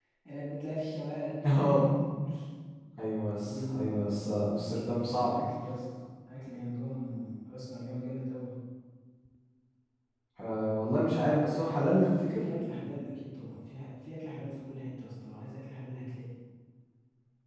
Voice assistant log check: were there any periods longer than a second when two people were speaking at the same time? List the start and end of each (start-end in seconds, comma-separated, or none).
none